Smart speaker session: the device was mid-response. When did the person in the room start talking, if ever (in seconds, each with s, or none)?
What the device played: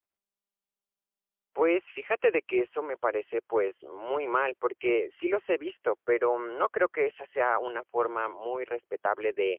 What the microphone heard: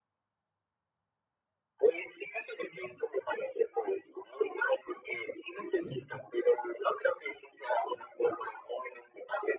5.9 s